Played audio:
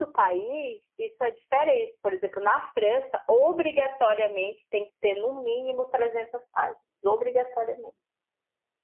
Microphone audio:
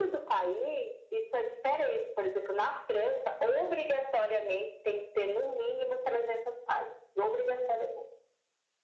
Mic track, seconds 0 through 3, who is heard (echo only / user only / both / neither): echo only